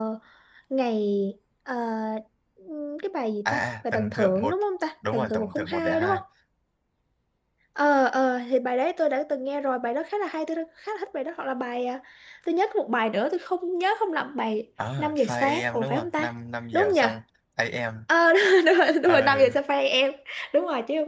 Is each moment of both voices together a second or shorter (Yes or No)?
No